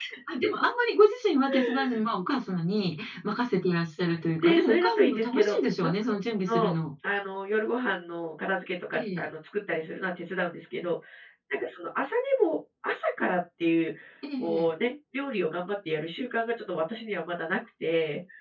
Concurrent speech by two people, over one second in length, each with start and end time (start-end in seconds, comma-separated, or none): 4.4-5.9